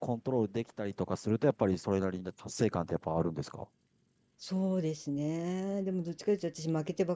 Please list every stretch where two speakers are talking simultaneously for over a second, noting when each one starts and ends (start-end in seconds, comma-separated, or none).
none